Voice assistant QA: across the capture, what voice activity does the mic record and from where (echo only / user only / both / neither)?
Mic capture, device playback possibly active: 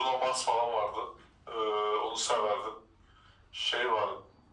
echo only